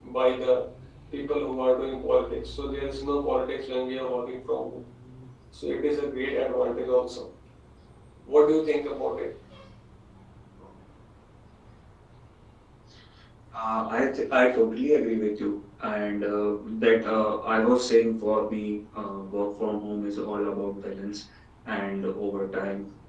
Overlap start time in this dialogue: none

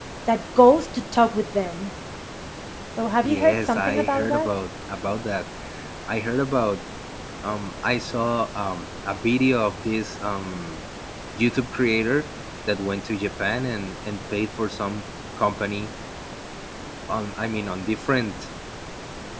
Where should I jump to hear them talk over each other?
3 s

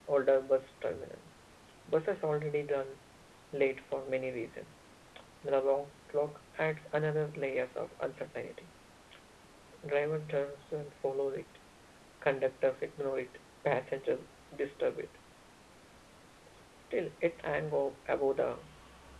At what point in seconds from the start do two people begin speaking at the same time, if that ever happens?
none

